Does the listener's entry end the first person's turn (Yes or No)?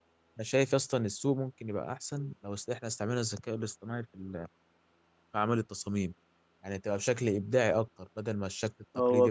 Yes